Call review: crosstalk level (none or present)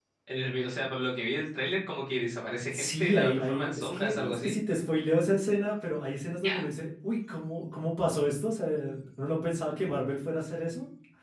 present